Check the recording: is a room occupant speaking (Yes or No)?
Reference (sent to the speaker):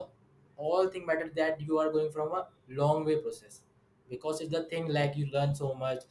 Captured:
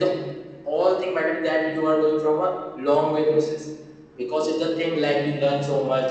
No